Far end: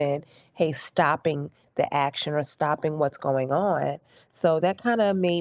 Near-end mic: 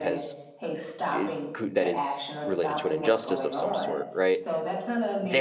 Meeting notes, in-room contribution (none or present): present